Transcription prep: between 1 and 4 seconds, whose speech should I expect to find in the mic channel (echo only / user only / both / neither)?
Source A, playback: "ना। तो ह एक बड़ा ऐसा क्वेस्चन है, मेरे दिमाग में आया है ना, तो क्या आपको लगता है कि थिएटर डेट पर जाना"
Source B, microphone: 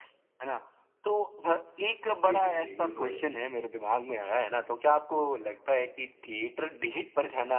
both